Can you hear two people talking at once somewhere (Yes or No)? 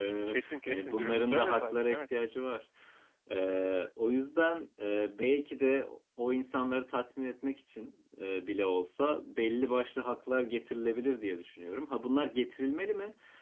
Yes